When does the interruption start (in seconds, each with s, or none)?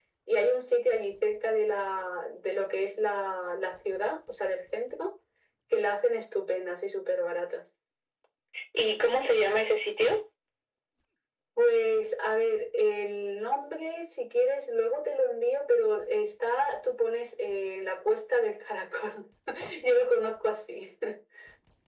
none